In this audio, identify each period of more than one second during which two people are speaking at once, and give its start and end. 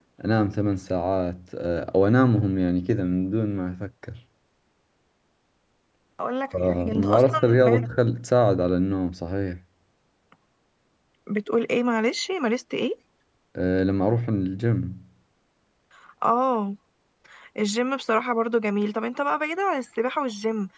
6.5-7.8

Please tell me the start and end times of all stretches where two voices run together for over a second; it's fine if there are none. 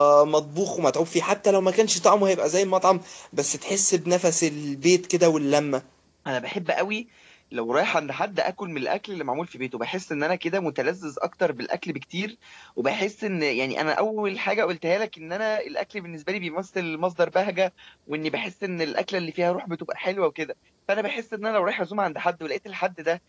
none

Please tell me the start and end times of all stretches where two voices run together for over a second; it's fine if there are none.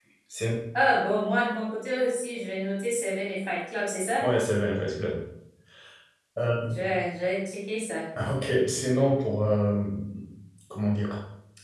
none

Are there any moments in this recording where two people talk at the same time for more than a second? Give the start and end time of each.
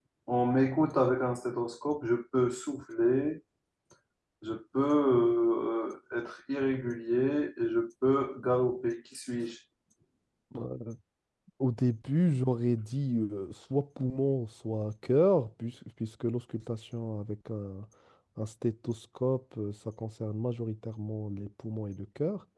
none

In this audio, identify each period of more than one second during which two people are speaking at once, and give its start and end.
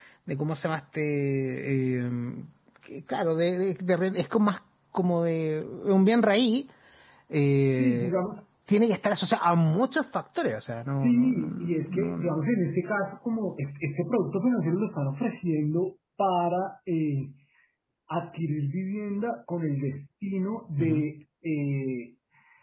10.9-12.4

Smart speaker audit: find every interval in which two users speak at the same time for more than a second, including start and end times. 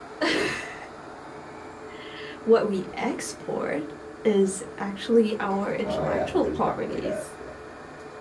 5.8-7.2

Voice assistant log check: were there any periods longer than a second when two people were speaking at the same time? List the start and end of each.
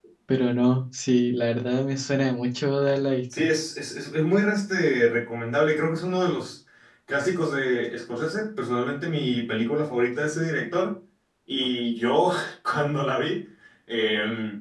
none

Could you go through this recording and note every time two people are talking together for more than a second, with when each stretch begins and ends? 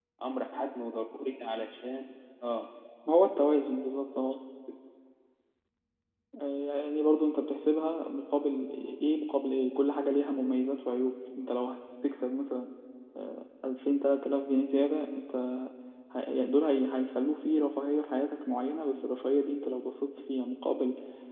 none

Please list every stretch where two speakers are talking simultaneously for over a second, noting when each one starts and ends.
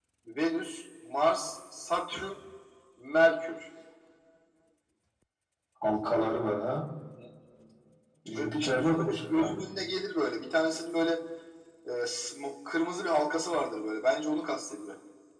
8.3-9.6

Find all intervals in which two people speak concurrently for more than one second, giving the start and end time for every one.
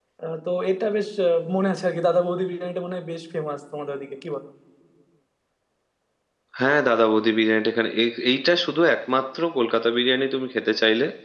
none

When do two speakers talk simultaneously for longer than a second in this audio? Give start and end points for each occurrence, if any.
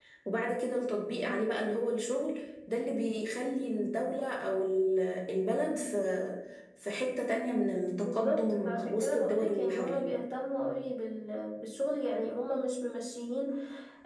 8.0-10.0

